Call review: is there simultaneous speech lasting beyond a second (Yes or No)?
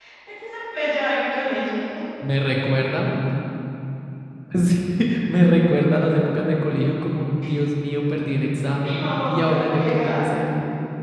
Yes